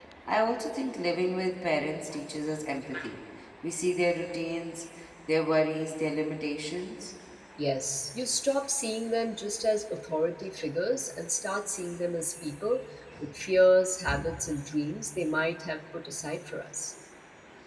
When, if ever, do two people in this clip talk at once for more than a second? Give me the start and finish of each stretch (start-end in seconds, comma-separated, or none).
none